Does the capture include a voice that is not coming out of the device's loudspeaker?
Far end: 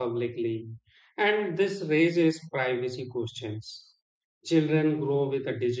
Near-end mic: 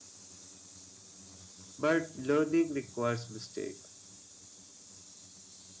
Yes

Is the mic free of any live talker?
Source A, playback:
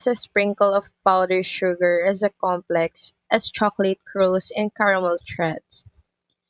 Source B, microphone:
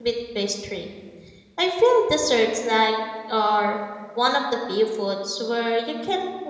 No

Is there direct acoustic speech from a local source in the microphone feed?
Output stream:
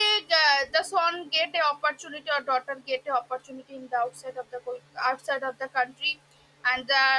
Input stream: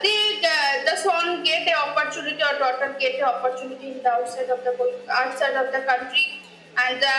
No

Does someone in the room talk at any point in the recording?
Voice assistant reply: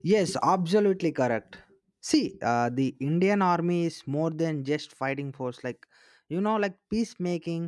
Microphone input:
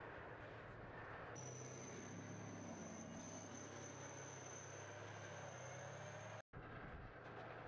No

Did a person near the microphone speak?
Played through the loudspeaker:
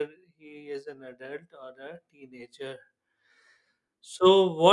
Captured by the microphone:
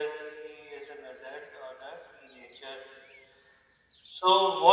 No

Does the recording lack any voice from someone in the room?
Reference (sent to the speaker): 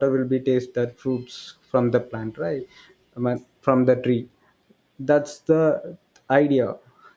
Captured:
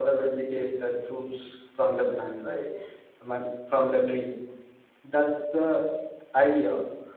Yes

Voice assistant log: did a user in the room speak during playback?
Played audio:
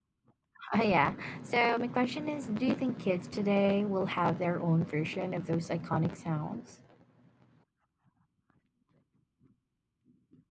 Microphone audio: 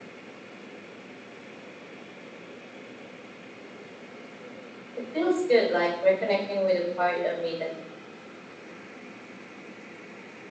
Yes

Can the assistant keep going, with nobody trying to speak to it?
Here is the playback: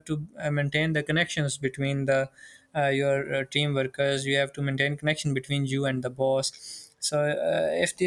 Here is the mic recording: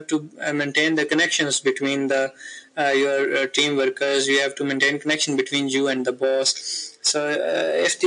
Yes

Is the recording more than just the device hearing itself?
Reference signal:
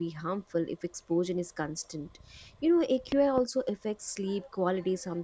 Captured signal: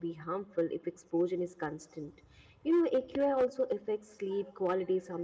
No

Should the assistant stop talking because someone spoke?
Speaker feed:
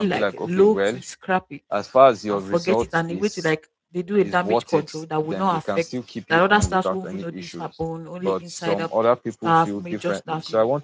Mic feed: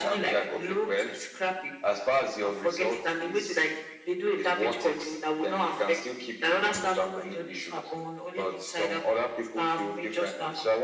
No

